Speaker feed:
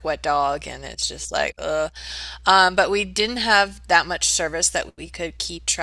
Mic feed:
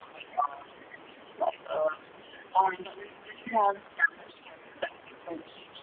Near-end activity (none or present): none